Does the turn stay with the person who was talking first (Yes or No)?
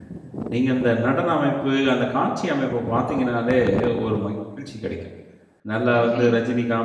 Yes